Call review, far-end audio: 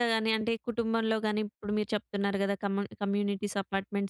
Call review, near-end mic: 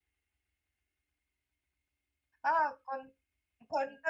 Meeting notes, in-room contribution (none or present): present